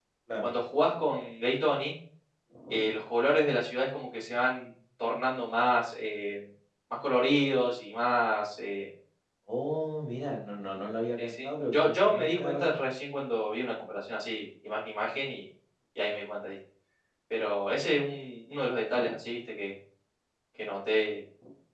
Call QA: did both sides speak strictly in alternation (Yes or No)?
No